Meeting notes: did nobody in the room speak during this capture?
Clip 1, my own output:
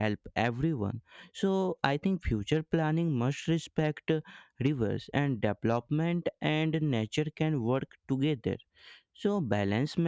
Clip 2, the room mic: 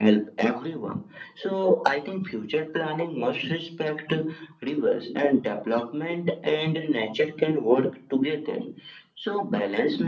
Yes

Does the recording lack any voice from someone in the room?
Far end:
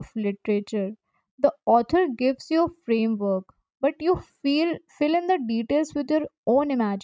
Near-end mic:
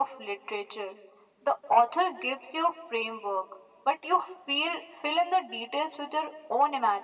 Yes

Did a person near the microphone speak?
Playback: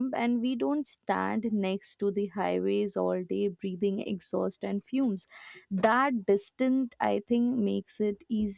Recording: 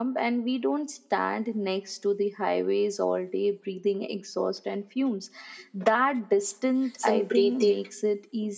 Yes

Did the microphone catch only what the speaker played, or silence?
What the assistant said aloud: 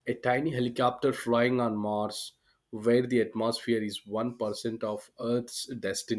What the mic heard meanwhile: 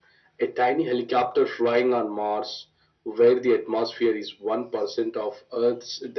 Yes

